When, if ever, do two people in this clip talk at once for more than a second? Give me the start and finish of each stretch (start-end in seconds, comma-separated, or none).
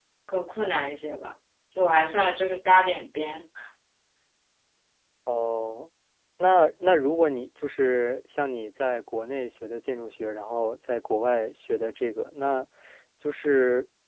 none